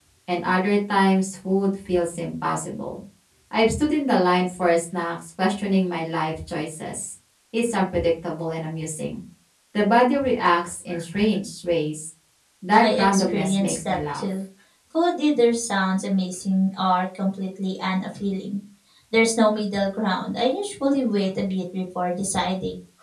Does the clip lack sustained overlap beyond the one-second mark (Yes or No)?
No